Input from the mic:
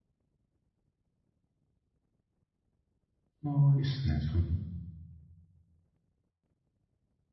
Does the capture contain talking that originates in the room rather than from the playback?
Yes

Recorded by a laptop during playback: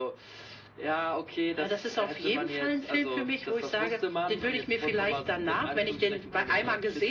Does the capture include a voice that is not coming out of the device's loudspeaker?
No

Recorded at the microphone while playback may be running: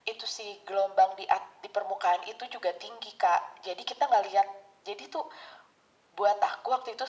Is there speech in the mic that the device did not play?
No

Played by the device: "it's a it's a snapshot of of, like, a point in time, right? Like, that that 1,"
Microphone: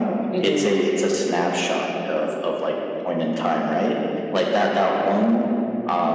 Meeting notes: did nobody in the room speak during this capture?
No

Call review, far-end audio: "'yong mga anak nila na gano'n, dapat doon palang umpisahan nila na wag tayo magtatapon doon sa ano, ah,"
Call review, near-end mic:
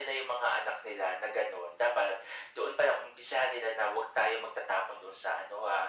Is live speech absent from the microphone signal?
Yes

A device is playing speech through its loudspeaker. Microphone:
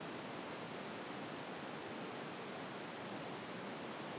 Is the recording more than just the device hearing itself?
No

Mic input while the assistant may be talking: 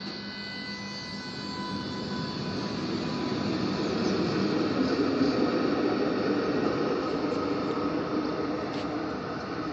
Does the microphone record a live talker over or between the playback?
No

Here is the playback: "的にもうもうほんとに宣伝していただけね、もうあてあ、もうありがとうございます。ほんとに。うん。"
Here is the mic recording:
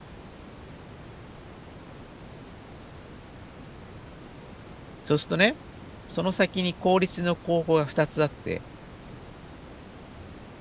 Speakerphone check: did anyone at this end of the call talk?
Yes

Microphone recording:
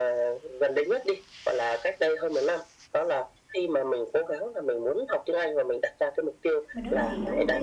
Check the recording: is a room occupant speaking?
Yes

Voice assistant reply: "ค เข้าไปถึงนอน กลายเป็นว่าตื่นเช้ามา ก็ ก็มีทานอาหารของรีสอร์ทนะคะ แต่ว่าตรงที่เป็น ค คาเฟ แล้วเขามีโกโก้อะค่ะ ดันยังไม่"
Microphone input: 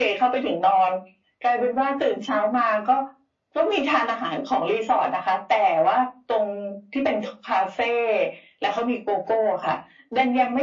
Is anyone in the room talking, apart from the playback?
No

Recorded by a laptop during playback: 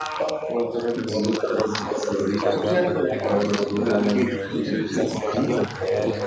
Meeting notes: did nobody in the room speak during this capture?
No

